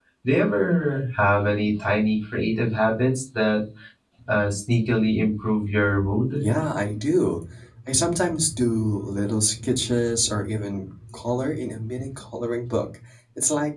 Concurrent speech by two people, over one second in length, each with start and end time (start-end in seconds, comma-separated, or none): none